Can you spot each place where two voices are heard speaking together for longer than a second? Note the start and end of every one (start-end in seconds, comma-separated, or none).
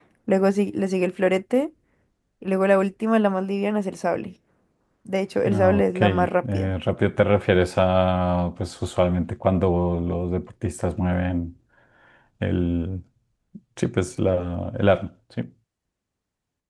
5.5-6.7